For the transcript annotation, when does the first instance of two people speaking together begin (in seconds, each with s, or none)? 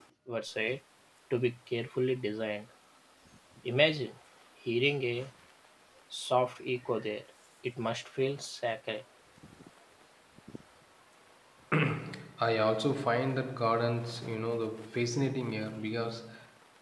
none